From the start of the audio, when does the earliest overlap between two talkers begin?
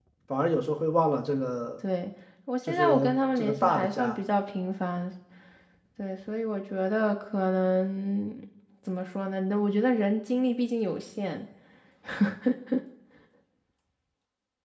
2.7 s

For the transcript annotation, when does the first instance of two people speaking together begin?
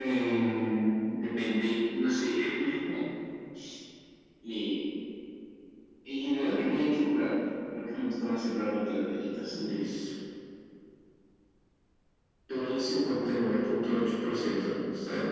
none

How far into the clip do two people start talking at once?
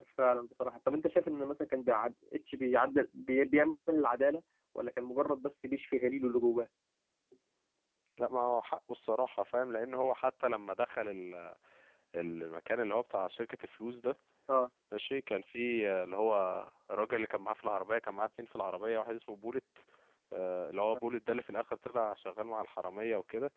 none

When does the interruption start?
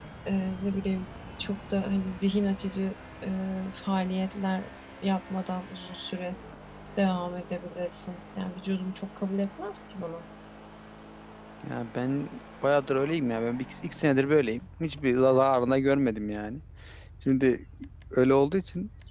none

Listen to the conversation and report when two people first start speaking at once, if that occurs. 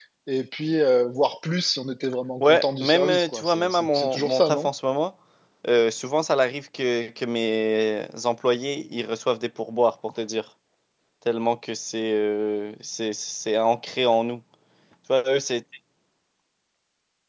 2.4 s

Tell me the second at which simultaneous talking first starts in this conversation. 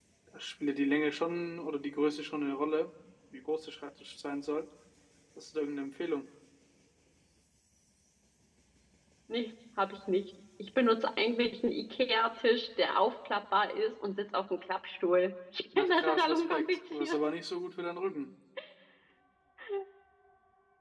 15.7 s

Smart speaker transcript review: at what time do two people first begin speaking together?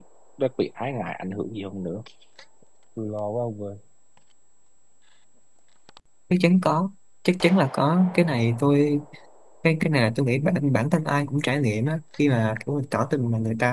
none

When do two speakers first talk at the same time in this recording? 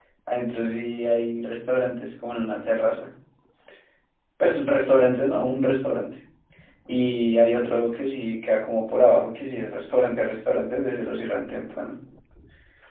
none

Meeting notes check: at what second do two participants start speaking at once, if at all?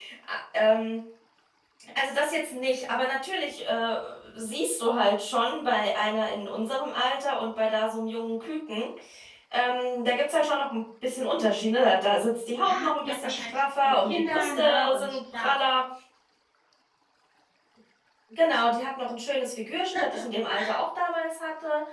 12.6 s

